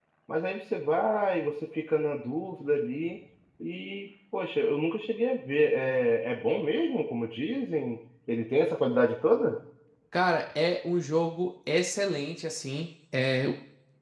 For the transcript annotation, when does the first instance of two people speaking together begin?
none

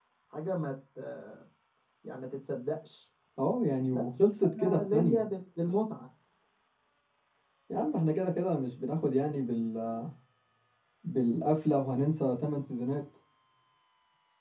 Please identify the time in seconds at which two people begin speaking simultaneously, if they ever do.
3.9 s

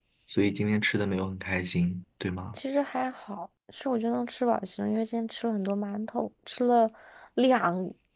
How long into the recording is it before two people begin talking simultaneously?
none

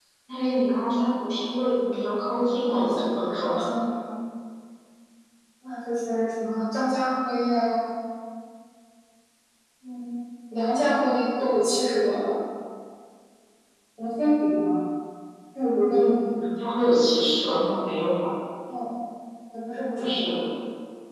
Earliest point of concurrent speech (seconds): 2.3 s

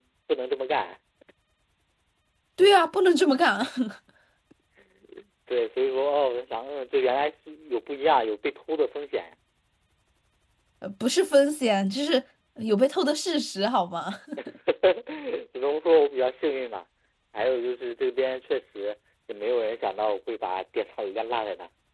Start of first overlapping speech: none

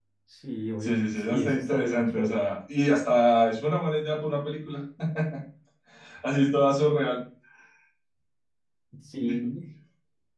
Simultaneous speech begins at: 0.8 s

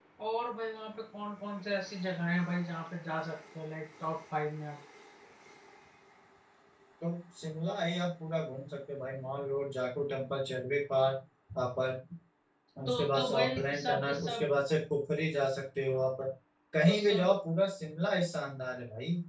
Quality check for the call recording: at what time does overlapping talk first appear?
12.9 s

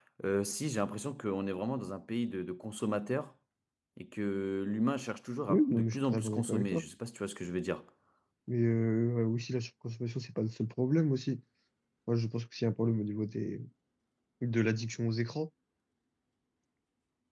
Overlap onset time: 5.5 s

